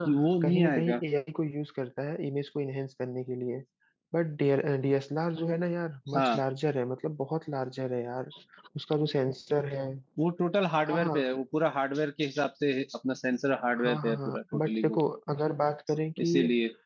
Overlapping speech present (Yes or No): Yes